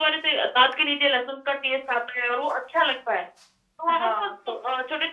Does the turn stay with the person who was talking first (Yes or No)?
Yes